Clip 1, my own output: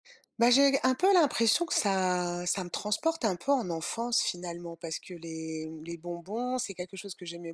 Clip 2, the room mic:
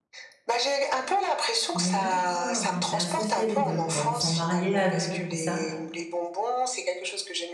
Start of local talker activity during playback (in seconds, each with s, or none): 1.7 s